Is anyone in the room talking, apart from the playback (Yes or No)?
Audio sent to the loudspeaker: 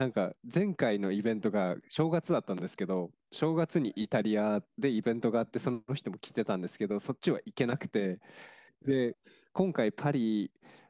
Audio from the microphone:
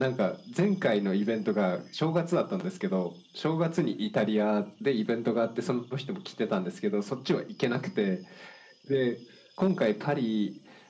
No